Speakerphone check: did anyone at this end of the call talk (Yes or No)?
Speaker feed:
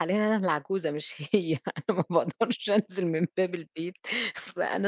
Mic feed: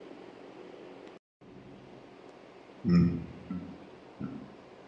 Yes